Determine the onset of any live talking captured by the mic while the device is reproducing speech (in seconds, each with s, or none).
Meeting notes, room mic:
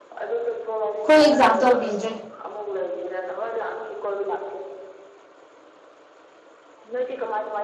1.1 s